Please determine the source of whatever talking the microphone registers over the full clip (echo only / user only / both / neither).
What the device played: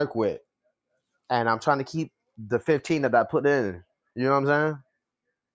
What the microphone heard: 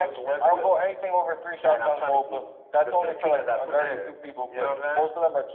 both